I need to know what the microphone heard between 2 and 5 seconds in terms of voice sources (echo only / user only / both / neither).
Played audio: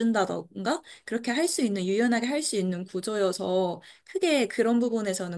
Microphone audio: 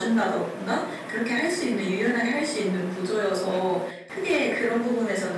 echo only